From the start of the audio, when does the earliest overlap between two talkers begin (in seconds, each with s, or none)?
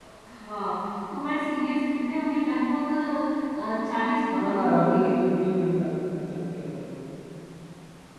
4.2 s